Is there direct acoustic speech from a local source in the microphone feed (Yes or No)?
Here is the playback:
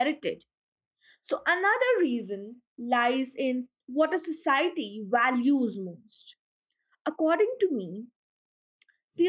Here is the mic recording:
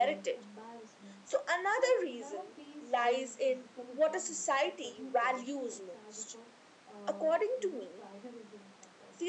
Yes